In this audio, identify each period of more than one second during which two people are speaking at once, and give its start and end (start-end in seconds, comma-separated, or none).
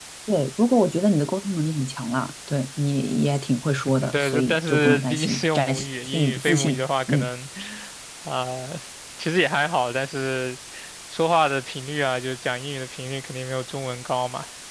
4.0-7.3